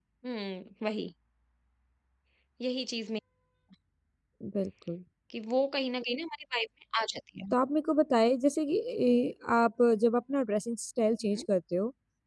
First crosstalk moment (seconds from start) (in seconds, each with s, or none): none